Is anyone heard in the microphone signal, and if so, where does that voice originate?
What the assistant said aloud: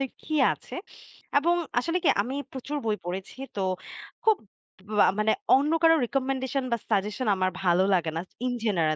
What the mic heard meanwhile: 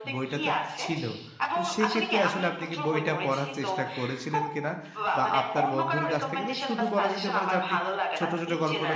both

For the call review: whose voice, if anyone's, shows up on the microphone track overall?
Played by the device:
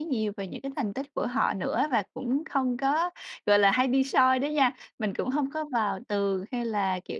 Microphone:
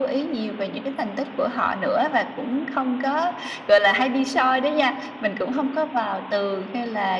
echo only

